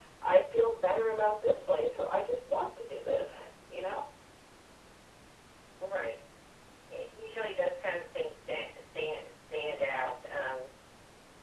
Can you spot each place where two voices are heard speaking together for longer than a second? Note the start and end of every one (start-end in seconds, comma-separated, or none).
none